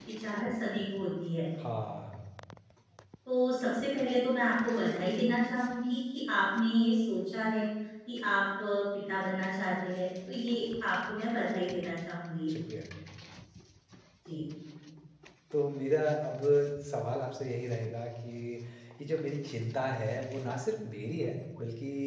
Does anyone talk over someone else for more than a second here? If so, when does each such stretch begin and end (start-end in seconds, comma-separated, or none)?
none